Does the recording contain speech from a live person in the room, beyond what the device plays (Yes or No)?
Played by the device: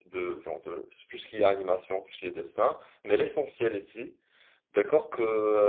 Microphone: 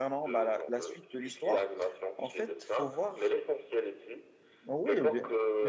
Yes